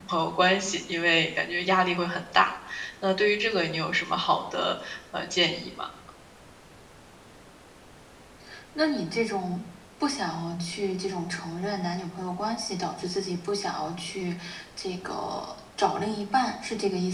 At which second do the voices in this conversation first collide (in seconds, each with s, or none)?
none